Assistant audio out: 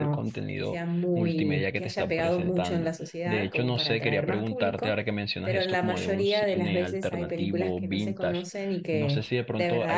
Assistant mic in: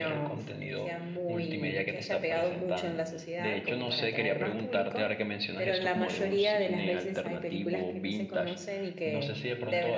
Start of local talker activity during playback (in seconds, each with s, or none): none